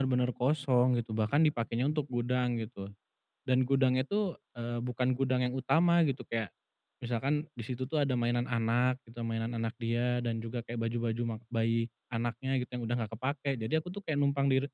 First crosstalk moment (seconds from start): none

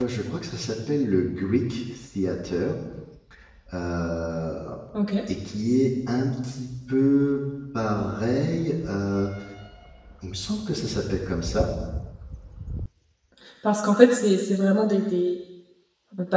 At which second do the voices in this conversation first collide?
none

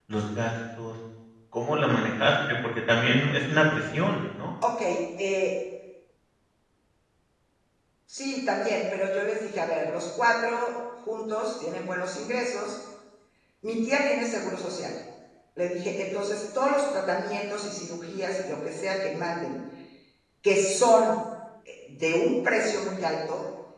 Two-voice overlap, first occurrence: none

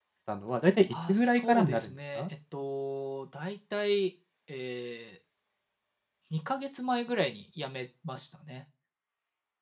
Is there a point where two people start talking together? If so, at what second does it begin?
0.9 s

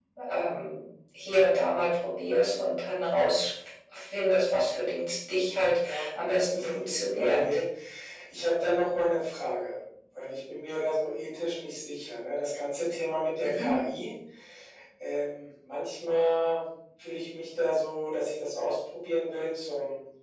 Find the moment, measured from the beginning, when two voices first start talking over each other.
5.3 s

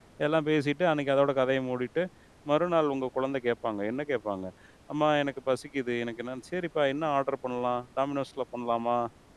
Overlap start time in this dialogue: none

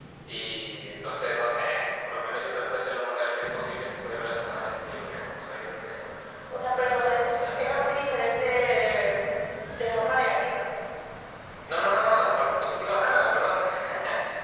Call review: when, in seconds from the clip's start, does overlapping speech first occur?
6.6 s

